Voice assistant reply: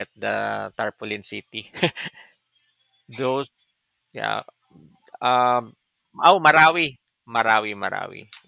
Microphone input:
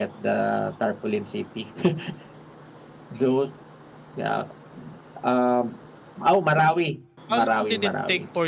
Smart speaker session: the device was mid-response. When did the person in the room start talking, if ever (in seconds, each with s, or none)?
7.3 s